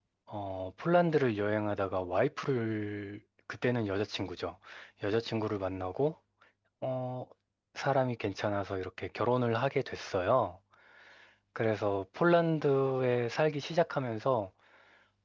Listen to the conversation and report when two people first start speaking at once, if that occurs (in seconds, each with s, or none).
none